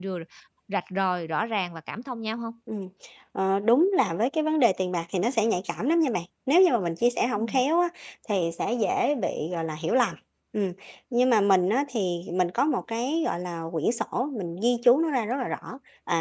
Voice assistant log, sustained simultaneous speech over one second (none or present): none